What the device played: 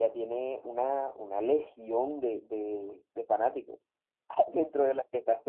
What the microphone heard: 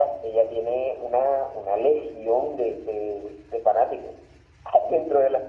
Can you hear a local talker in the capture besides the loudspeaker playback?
No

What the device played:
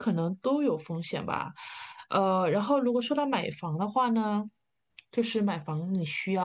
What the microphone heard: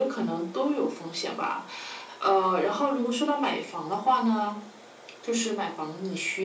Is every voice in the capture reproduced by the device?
Yes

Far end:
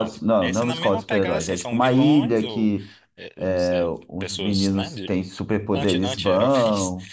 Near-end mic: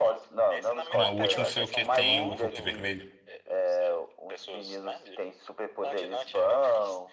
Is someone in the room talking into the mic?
Yes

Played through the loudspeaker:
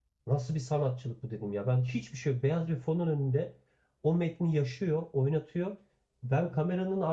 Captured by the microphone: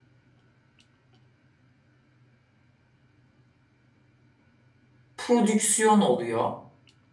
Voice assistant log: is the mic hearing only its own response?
No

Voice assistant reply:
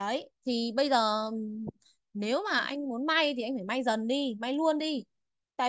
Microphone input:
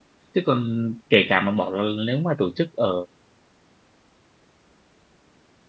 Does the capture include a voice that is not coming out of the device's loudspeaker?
Yes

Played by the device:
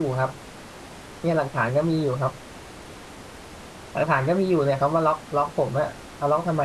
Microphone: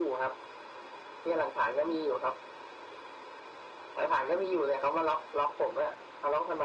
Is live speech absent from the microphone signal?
Yes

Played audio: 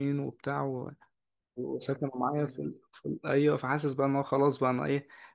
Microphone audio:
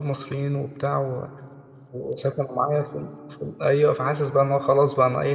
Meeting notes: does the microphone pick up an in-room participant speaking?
No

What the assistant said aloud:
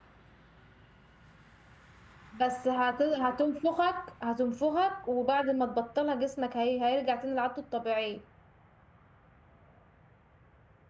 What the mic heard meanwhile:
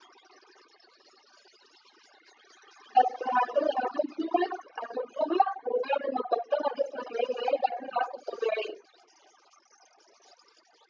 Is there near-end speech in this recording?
No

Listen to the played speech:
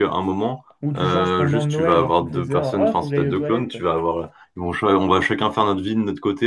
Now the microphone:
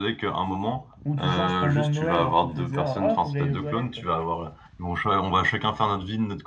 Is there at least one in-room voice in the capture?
No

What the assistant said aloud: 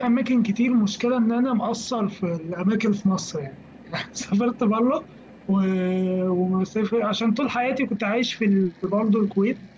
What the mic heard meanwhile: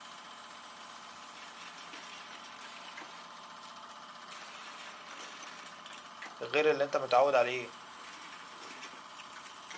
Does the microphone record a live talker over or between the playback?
Yes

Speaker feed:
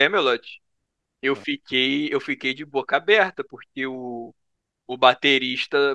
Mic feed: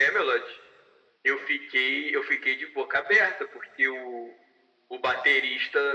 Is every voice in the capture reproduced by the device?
Yes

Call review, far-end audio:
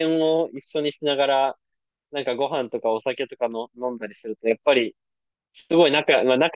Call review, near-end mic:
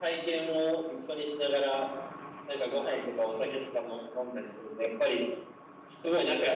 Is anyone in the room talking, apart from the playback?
No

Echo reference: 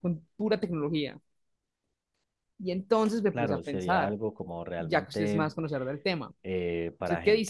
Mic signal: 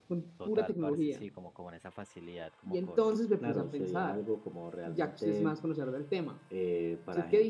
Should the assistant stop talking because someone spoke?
Yes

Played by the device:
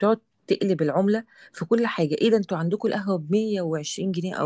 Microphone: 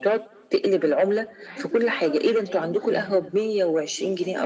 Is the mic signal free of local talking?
No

